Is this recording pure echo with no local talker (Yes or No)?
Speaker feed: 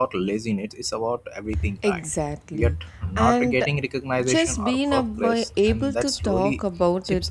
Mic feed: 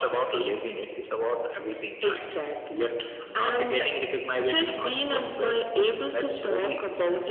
Yes